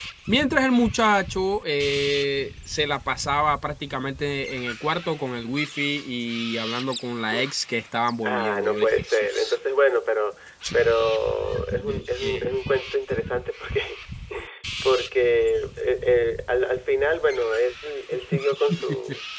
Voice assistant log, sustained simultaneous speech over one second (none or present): present